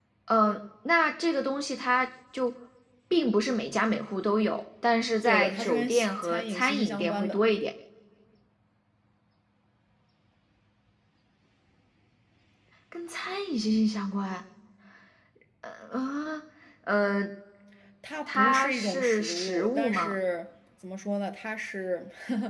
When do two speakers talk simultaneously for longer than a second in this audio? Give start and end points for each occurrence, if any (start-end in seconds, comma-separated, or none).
5.2-7.4, 18.3-20.2